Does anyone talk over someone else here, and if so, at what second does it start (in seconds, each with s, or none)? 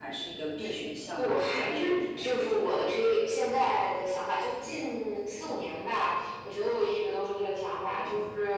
1.2 s